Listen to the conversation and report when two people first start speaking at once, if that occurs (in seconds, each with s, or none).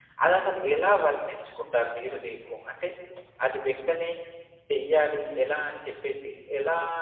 none